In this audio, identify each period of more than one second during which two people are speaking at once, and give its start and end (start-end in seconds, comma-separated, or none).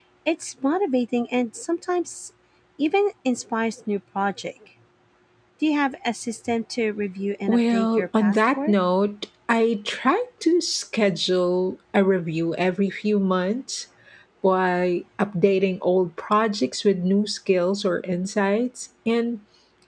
7.5-8.7